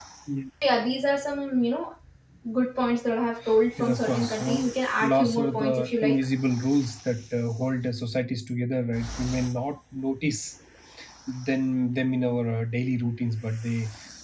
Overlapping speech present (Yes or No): Yes